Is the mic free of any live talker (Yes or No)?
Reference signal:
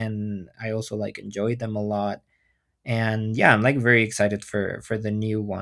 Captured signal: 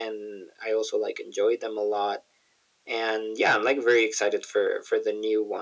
Yes